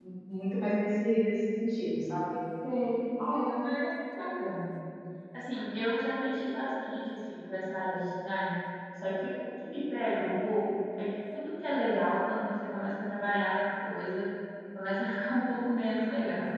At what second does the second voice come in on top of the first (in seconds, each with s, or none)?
none